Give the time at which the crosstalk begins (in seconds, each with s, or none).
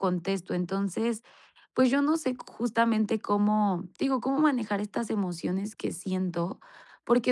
none